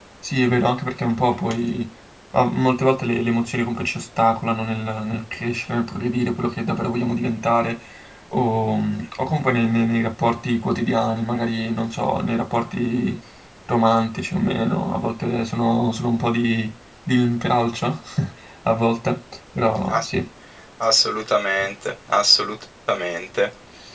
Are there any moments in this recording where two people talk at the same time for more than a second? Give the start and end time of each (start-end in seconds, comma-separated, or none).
none